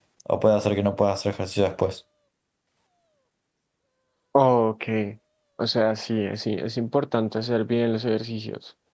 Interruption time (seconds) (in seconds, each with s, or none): none